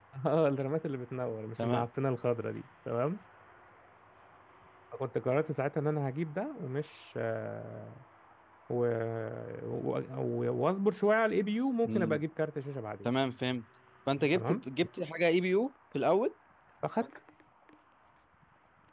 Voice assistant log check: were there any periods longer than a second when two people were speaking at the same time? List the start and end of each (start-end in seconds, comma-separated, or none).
none